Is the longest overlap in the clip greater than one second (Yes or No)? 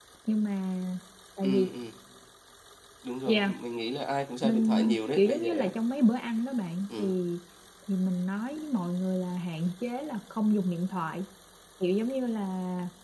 No